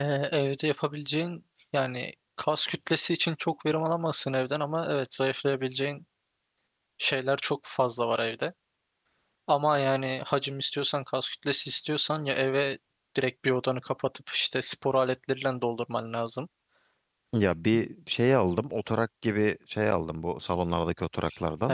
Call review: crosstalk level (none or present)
none